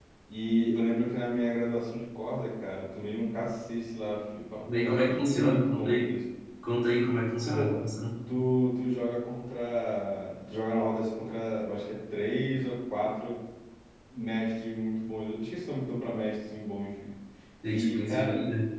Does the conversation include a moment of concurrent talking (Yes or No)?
Yes